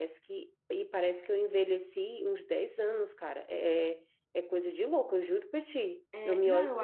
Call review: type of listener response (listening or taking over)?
taking over